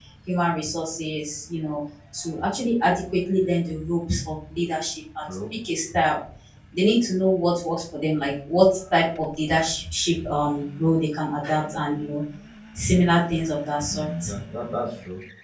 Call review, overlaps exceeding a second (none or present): none